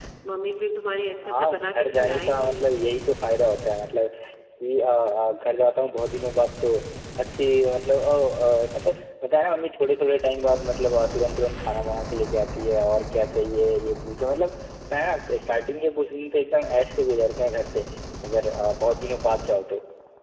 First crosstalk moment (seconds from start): 1 s

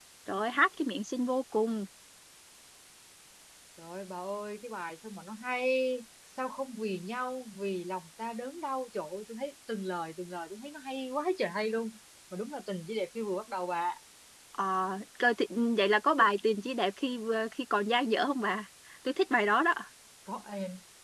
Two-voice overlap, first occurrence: none

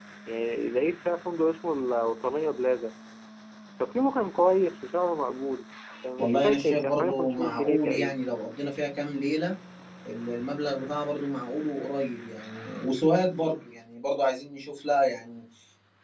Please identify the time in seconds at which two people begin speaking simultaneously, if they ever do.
6 s

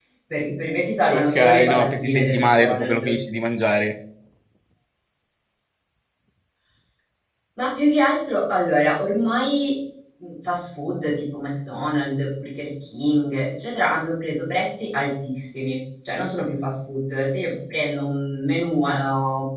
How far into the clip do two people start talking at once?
1 s

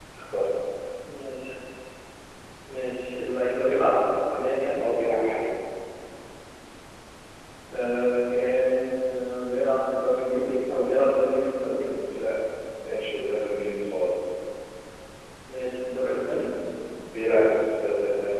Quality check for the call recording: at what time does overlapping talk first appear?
none

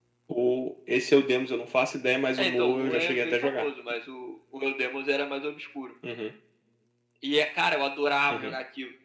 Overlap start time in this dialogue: 2 s

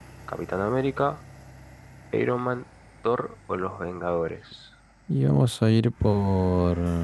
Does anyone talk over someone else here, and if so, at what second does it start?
none

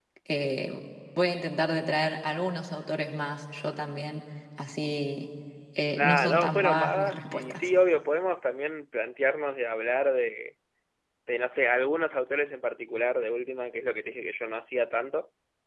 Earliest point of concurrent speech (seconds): 6 s

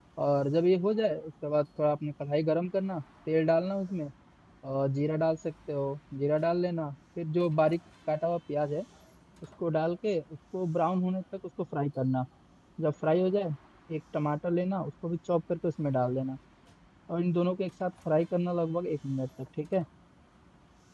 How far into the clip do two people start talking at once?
none

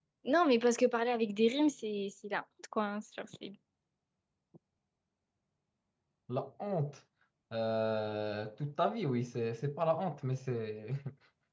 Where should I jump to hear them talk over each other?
none

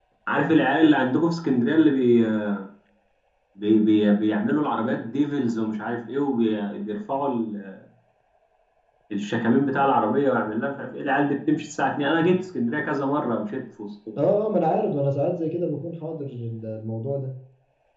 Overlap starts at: none

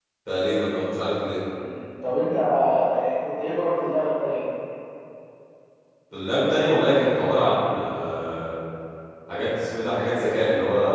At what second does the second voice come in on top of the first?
none

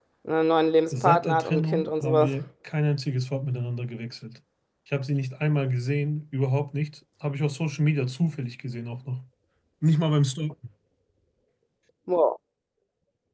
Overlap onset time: 1 s

